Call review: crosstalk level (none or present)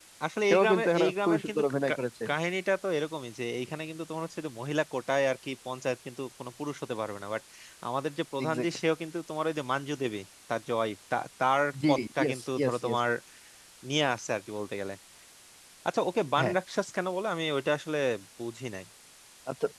present